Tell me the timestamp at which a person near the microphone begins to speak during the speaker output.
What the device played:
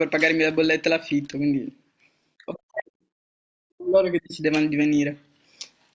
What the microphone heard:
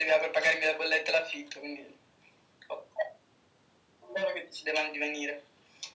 none

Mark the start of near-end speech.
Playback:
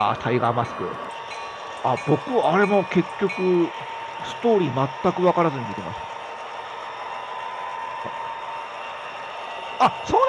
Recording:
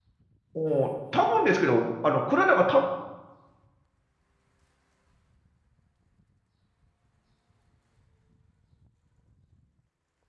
0.5 s

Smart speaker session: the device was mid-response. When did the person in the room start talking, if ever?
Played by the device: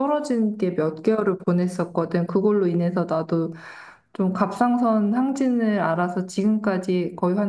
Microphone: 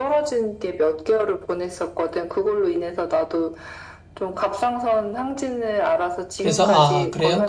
6.4 s

